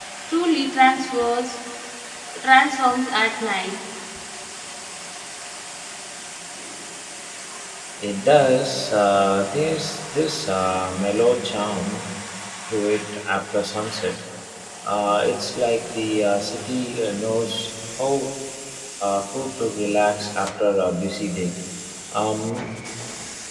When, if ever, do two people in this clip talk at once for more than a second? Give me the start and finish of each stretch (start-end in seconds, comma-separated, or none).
none